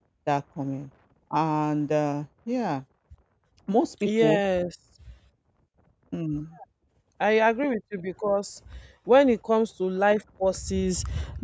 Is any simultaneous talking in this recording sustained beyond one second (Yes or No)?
No